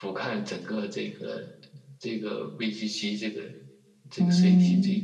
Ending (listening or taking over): taking over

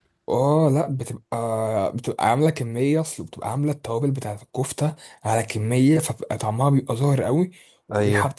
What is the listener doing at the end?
listening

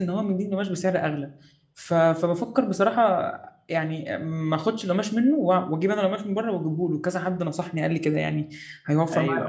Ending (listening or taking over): taking over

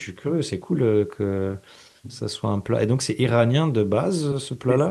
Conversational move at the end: taking over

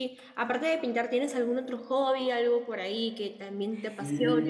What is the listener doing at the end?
taking over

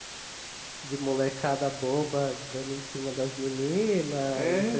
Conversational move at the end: listening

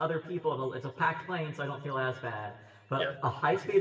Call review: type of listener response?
listening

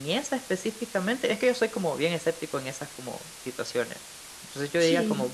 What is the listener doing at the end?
listening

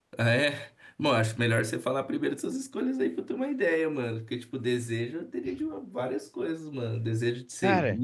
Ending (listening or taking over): listening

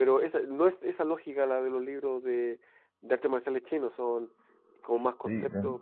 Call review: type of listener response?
taking over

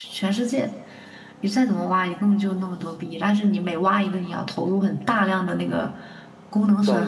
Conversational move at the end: listening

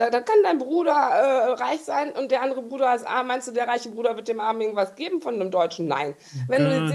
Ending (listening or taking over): listening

